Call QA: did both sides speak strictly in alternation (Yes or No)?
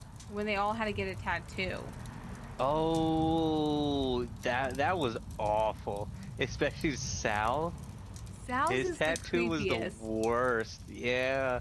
No